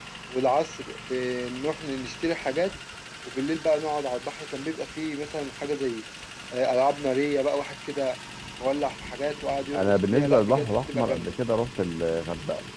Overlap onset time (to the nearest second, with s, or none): 10 s